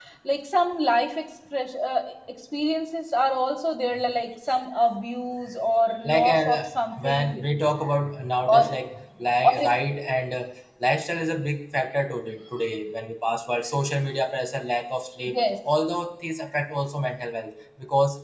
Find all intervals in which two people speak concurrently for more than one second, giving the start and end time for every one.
6.0-7.4

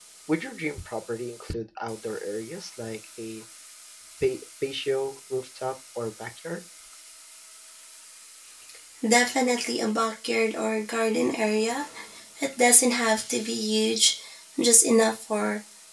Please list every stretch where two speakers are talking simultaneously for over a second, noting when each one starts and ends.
none

